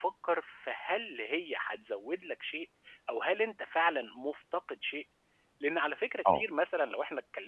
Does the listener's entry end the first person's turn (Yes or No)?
No